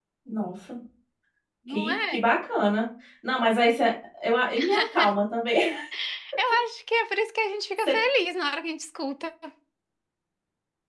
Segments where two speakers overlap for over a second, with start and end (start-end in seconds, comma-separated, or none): none